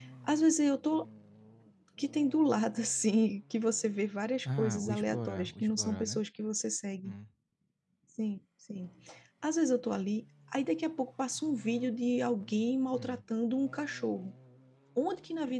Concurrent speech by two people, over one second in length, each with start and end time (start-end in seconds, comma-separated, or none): 4.5-6.2